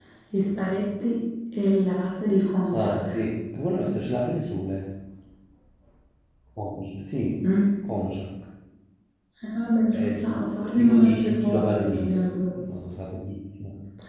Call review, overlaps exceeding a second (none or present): present